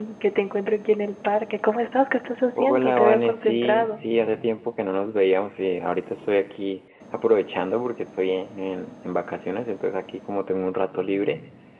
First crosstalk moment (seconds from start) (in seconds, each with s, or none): 2.5 s